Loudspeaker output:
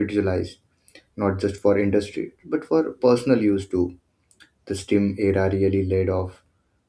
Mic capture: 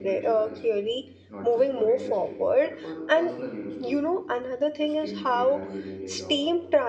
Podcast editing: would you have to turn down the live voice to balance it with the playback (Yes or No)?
Yes